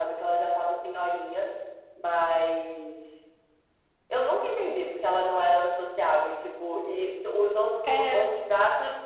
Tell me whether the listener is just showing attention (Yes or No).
Yes